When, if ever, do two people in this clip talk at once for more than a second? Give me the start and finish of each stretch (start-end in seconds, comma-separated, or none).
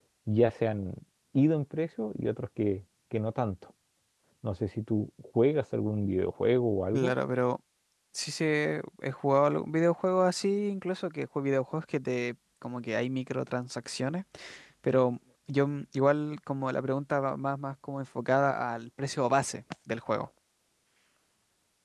none